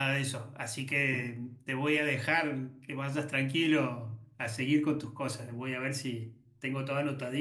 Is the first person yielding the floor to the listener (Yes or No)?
No